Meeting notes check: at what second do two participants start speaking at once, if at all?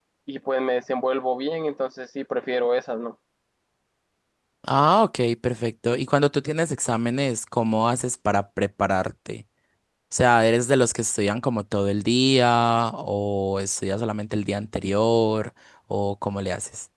none

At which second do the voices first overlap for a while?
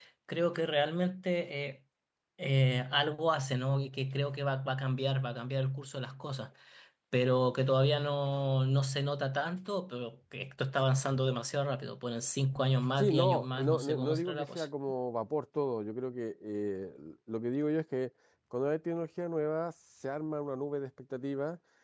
13.0 s

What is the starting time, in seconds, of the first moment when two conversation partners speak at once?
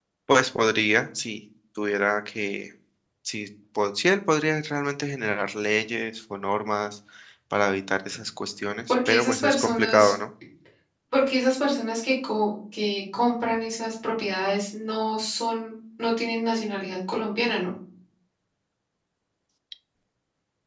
8.9 s

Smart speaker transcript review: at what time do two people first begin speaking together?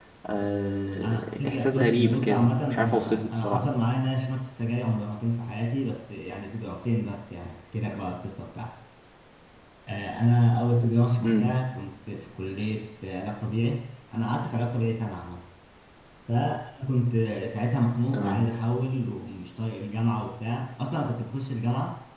1.0 s

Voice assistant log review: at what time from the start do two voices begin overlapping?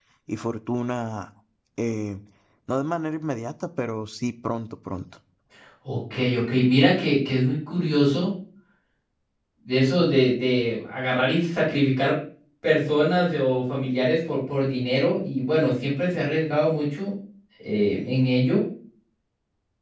none

